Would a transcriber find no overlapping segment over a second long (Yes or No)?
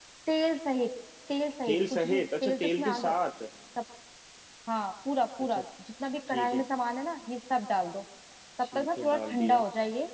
No